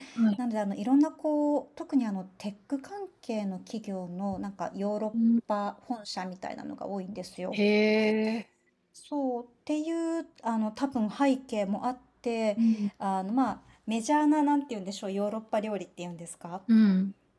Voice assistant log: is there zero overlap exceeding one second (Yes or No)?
Yes